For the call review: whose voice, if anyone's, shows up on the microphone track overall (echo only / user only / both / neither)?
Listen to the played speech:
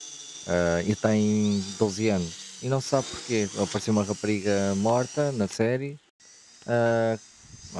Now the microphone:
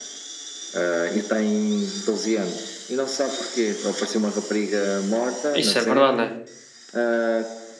both